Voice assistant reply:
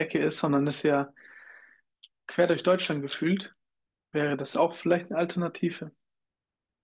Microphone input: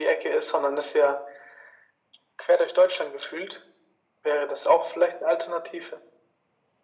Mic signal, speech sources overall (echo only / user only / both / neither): echo only